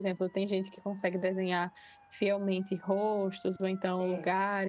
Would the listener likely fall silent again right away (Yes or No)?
Yes